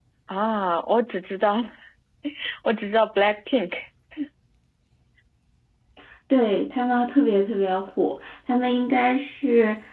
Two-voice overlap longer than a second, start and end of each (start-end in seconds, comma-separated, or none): none